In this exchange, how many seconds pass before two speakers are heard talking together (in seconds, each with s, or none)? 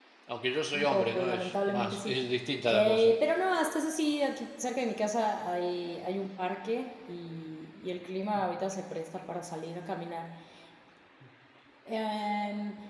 0.7 s